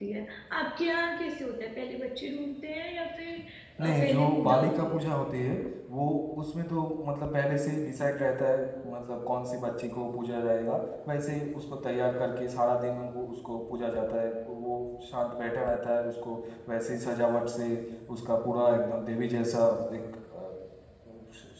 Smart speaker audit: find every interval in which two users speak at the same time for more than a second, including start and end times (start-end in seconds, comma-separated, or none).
3.8-5.0